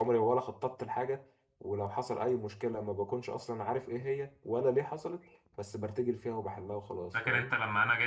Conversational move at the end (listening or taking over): taking over